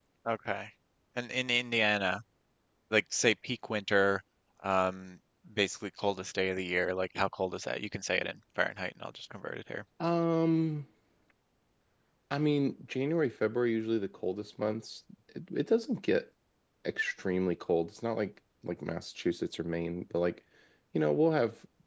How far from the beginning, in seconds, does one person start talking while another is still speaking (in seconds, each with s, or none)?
none